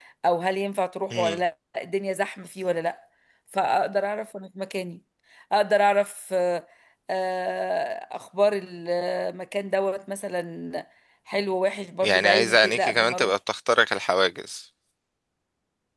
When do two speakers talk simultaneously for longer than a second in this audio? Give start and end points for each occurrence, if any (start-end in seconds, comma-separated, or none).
12.0-13.3